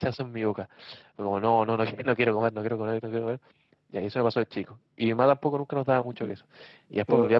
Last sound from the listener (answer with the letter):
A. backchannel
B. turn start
A